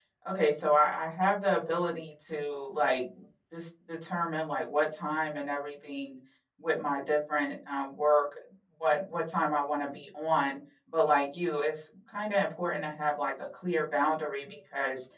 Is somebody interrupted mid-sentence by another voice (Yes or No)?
No